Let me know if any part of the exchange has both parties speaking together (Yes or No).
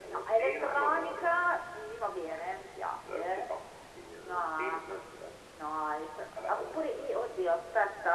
Yes